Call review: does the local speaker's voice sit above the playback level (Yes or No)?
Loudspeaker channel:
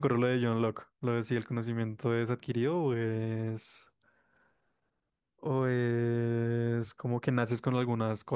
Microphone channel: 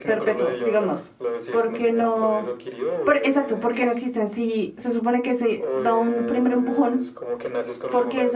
Yes